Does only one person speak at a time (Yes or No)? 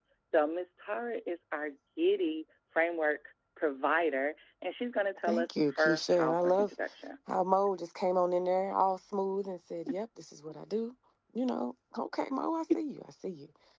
No